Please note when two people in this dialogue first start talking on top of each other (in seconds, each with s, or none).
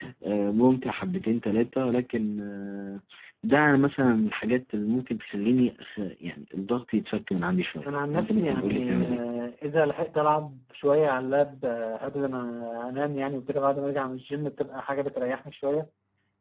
7.8 s